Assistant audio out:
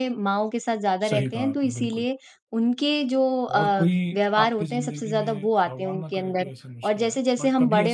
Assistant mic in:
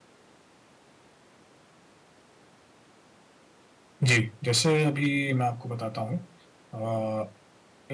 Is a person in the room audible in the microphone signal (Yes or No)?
Yes